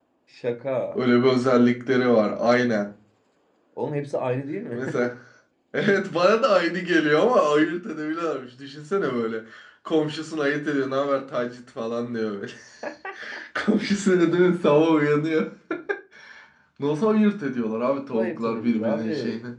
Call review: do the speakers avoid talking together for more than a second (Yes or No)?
No